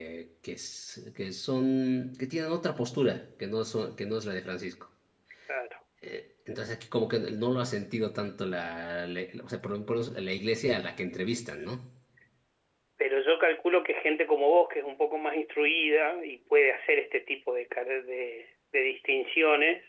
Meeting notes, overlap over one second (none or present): none